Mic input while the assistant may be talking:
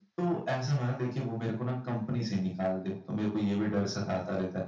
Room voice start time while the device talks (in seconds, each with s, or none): none